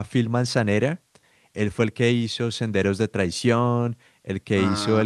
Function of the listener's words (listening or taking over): taking over